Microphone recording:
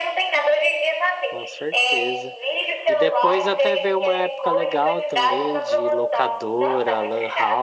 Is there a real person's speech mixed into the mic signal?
Yes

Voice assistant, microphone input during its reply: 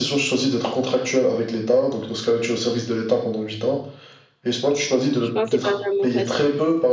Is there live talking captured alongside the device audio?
Yes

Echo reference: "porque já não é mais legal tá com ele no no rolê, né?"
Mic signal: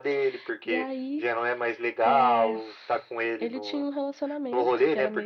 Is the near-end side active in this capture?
Yes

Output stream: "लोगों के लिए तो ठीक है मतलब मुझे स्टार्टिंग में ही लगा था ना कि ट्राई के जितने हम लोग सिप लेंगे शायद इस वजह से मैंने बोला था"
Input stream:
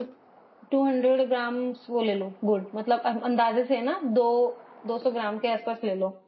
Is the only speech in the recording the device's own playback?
No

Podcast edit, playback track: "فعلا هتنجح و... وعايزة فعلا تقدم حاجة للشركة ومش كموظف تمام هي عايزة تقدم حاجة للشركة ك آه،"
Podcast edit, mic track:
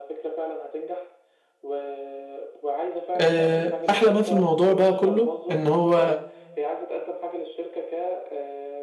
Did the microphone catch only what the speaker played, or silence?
No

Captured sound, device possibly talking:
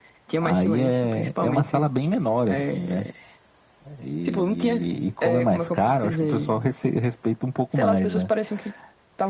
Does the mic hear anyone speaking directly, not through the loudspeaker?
No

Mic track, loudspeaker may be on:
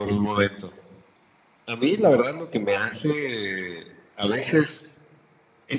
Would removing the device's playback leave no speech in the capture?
Yes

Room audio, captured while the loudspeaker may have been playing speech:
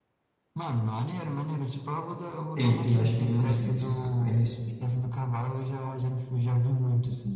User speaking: Yes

